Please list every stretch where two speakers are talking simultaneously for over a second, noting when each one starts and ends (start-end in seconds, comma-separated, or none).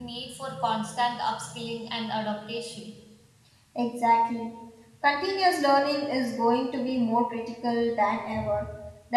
none